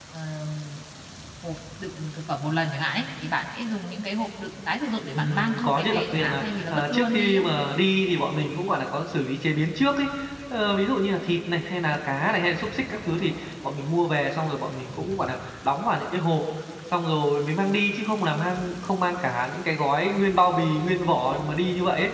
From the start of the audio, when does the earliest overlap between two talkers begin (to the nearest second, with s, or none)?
5 s